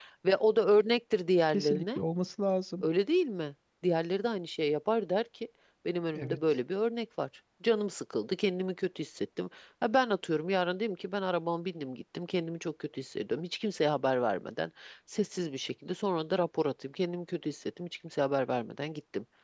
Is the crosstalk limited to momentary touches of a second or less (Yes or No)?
Yes